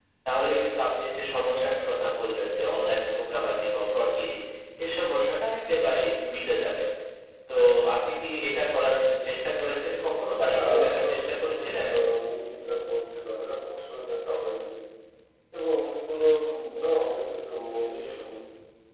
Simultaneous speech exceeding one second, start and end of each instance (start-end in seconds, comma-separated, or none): 10.5-11.9